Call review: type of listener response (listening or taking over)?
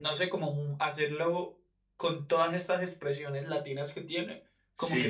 taking over